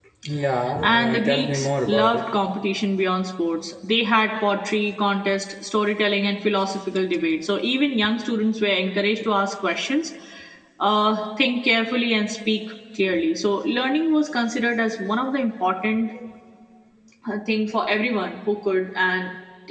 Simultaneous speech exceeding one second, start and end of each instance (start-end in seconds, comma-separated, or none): 0.8-2.2